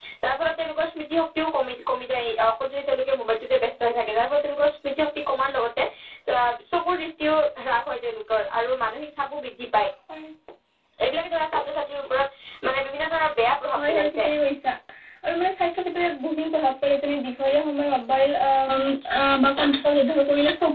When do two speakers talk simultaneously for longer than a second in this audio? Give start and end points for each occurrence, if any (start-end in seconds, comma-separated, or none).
none